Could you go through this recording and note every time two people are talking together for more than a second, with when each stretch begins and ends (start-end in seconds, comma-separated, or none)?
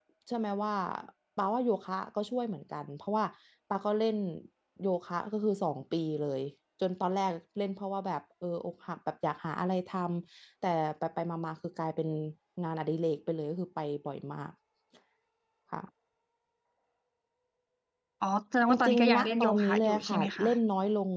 18.7-20.5